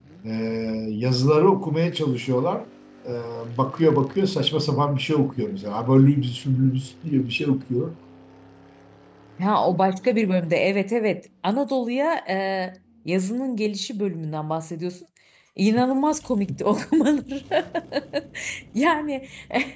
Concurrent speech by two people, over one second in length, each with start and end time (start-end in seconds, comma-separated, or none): none